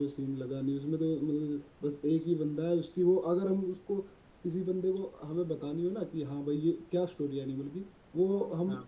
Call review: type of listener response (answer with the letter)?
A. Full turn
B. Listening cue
B